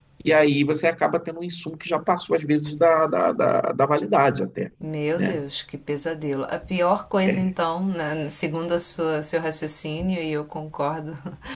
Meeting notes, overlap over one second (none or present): none